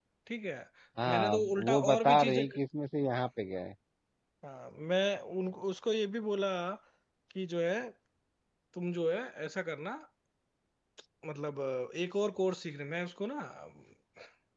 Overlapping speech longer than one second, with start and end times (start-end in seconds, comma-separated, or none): 1.1-2.4